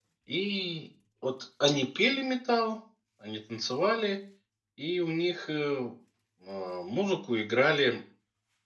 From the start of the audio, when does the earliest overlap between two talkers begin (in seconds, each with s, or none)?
none